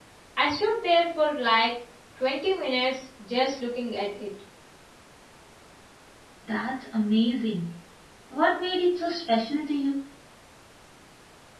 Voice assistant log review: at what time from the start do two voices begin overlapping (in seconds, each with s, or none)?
none